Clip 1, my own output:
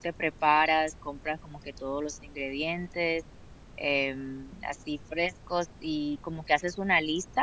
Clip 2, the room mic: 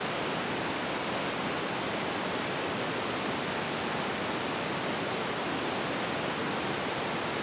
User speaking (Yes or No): No